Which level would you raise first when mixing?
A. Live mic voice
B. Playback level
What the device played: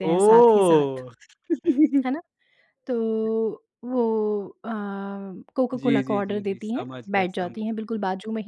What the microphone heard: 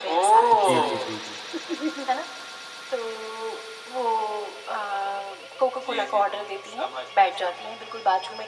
A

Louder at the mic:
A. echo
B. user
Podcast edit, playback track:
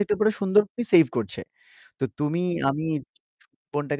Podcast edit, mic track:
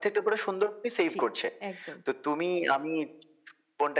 A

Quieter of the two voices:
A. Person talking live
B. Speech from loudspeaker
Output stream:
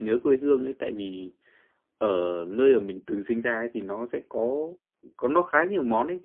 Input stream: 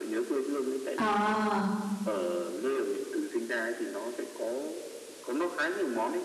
B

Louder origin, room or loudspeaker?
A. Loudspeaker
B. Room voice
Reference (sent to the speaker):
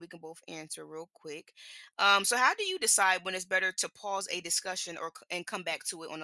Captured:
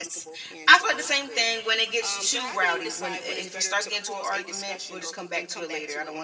B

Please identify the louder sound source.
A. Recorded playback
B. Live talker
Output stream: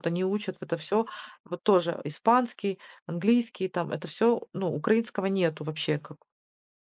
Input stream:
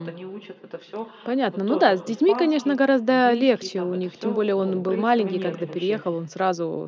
B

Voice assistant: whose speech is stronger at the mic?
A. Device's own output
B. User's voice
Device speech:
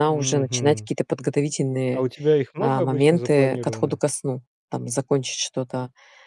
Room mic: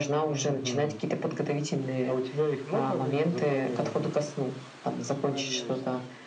A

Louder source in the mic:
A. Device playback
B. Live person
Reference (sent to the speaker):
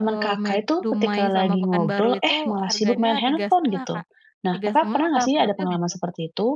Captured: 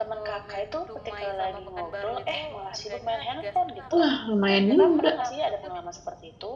B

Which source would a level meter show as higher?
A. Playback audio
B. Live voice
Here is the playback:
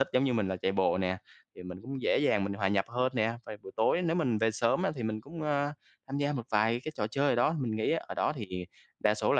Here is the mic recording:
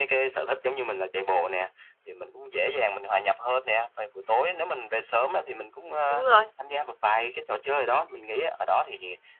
B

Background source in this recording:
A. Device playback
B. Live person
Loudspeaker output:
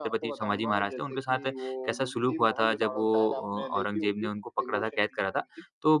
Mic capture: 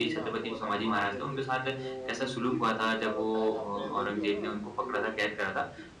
B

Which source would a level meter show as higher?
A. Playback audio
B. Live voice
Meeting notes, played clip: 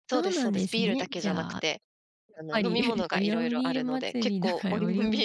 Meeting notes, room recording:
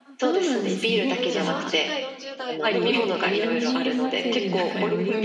A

